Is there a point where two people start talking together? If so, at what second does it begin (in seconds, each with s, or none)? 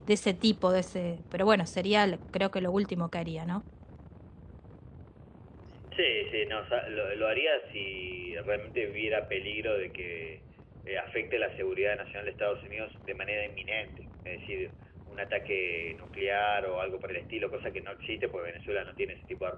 none